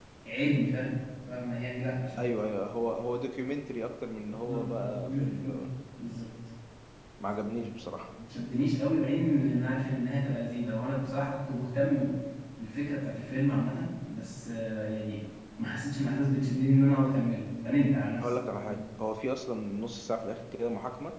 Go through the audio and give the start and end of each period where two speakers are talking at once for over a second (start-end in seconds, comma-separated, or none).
4.3-5.5